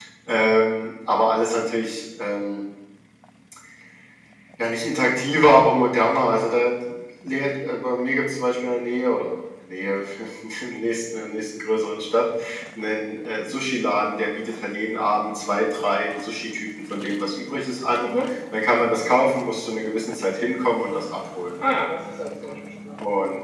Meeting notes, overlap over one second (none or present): none